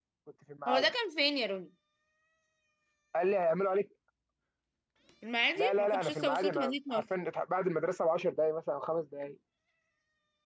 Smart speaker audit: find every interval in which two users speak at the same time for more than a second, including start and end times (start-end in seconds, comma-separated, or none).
5.6-7.0